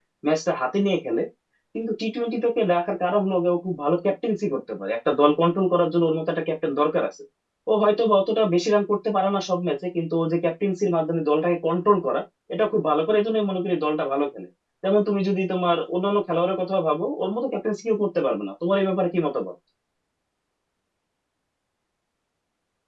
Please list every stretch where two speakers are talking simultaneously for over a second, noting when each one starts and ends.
none

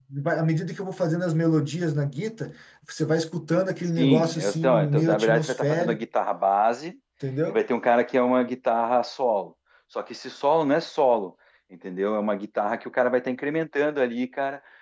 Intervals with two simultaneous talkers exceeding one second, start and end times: 4.0-6.0

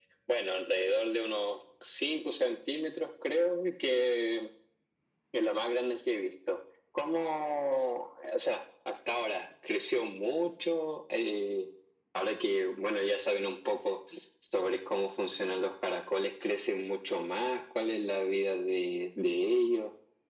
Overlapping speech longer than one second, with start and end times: none

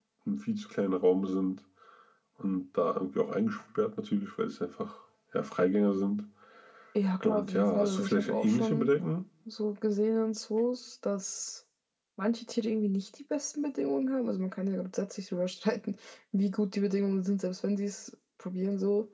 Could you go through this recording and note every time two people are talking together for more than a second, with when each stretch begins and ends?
7.2-8.9

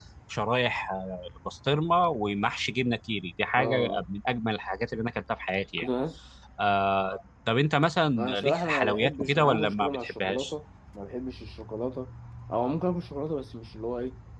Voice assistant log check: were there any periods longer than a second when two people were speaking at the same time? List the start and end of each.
8.2-10.5

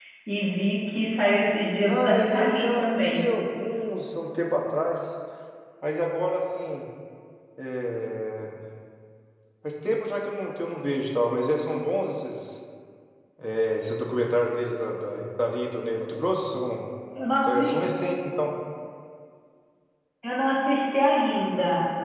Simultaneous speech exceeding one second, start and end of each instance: 1.9-3.2

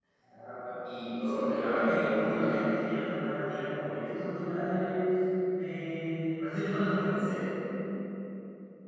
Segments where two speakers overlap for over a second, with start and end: 1.2-2.6

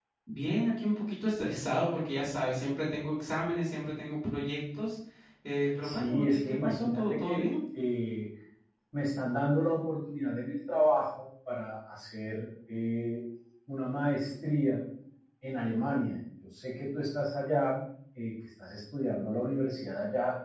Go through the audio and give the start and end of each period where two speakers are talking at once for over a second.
5.8-7.4

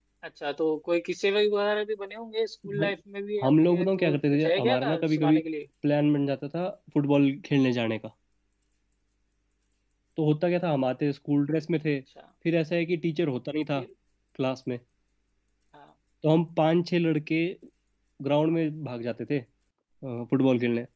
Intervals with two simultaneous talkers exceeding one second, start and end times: 3.4-5.4

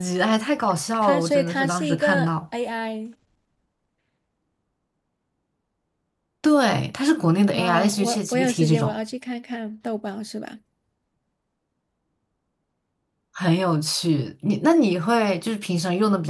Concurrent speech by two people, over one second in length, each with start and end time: 1.0-2.3, 7.5-9.0

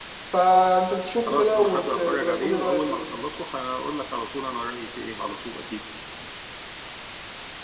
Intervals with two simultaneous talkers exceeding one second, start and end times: 1.3-3.1

